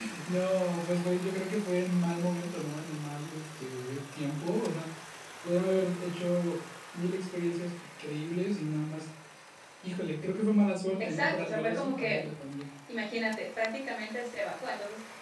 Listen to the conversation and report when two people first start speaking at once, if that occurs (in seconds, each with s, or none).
11.0 s